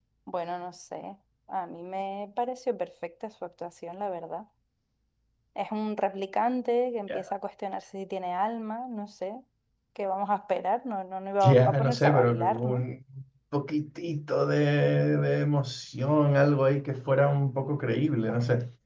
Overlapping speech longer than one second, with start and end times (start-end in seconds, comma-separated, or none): 11.4-12.8